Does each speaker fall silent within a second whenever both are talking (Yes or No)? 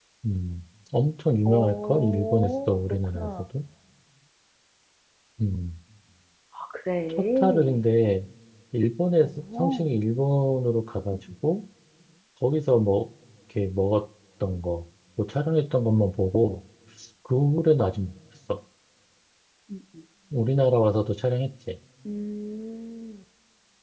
No